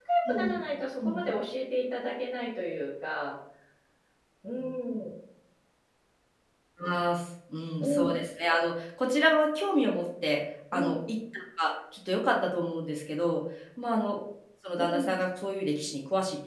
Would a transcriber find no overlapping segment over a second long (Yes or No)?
Yes